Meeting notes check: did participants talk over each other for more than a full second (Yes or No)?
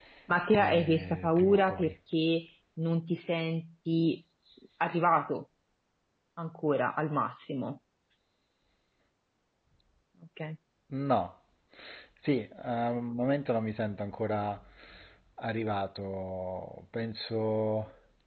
Yes